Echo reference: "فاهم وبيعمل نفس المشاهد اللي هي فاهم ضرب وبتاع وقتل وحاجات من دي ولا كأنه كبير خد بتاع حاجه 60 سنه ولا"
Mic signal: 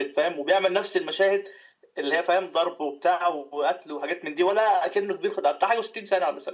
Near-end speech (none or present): none